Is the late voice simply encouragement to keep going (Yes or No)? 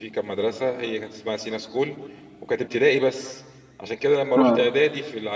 Yes